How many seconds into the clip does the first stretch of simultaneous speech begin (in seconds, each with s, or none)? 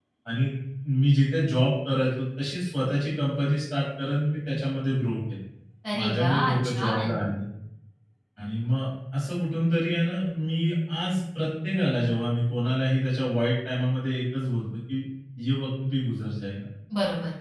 6.0 s